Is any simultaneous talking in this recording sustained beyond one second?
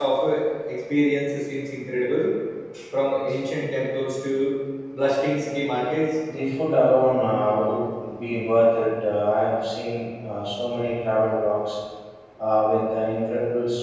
No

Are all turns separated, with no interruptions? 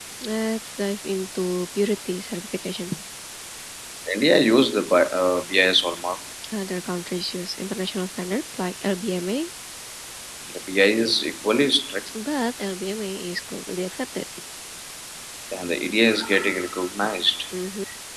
Yes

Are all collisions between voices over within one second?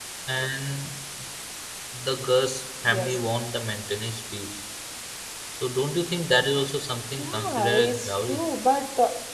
No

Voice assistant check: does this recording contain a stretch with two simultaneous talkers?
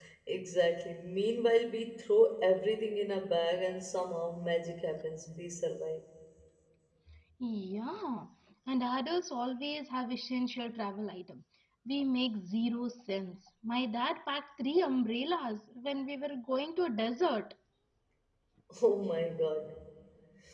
No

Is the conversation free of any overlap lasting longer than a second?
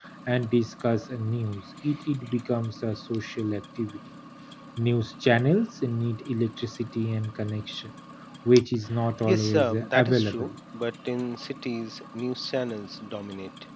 No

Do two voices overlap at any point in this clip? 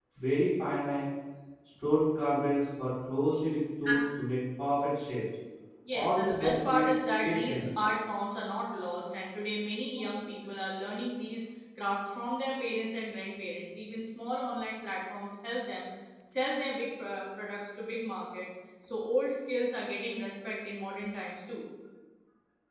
Yes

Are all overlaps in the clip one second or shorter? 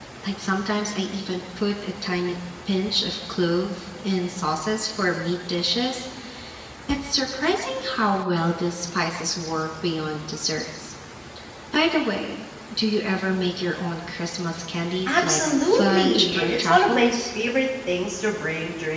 No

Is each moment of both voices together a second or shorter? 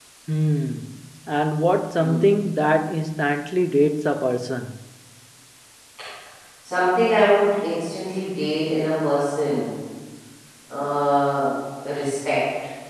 Yes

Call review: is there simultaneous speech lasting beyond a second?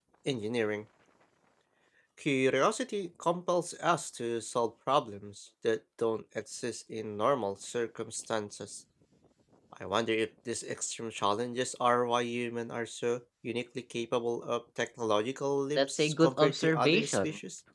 Yes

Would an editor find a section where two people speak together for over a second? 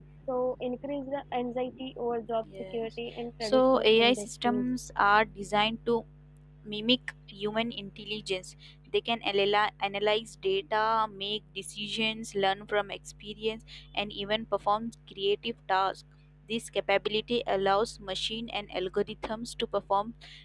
Yes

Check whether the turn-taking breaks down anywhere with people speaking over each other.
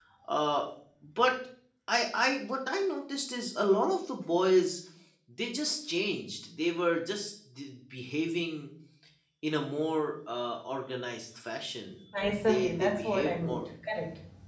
Yes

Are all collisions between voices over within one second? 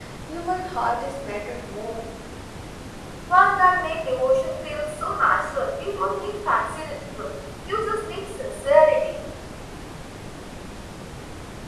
Yes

